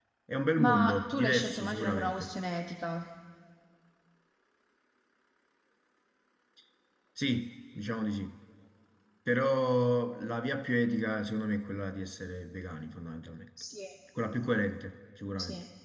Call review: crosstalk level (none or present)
present